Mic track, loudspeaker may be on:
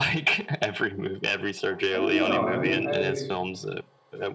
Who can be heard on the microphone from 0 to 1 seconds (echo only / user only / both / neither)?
echo only